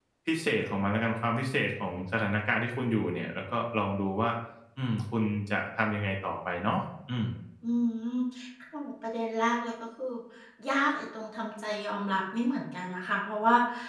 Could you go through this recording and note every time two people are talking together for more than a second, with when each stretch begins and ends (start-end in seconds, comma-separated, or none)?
none